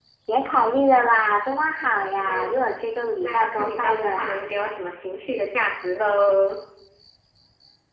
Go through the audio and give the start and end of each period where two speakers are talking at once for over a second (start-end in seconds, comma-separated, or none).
3.2-4.4